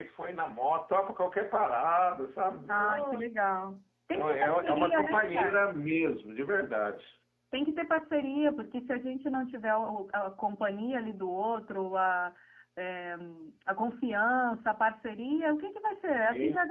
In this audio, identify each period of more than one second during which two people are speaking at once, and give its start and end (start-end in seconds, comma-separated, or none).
4.2-5.7